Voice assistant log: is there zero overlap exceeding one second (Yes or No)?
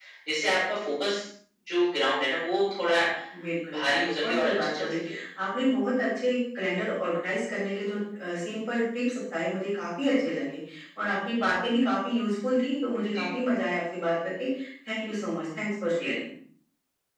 No